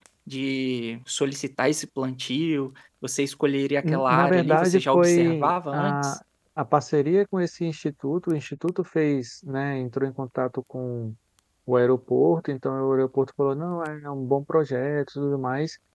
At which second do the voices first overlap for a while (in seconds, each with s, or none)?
3.8 s